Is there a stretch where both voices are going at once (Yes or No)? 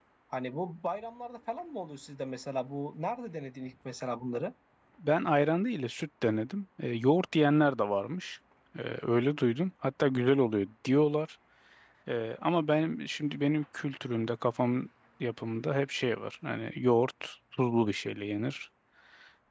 No